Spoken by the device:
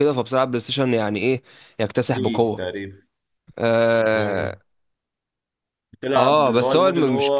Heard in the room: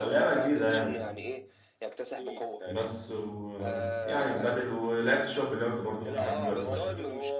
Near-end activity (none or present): present